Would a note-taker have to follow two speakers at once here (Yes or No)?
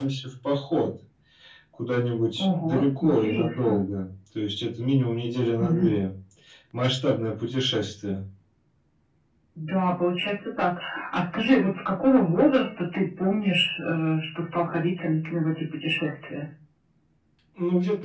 Yes